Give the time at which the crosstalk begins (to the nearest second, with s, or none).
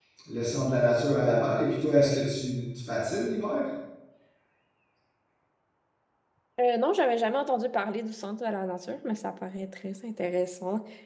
none